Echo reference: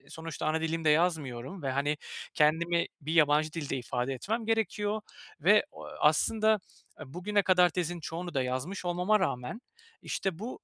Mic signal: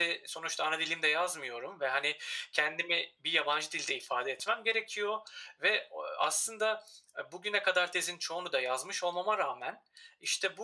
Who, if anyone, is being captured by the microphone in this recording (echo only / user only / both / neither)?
echo only